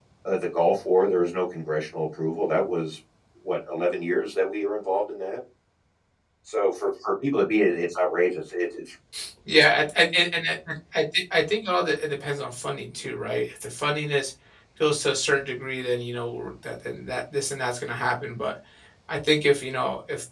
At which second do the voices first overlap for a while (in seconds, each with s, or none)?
none